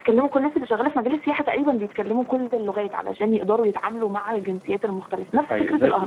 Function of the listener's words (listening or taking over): taking over